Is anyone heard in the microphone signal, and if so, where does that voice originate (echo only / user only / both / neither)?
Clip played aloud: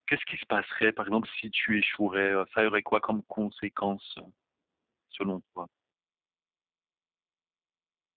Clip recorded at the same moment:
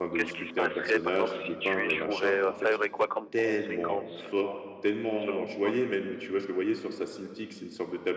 both